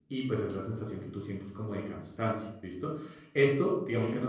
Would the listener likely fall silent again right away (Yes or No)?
Yes